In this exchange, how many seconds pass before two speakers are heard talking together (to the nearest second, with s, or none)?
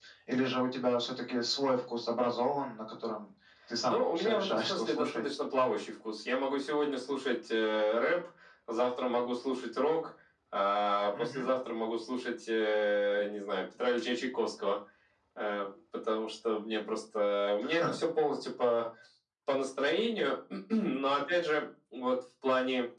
4 s